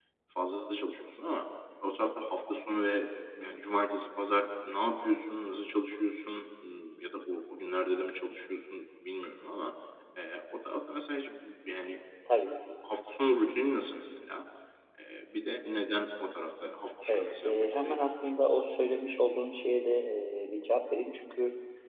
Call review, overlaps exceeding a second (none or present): present